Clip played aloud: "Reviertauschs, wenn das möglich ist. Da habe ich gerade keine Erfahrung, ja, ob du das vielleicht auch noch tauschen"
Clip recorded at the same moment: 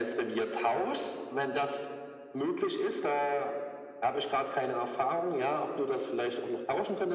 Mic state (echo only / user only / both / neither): echo only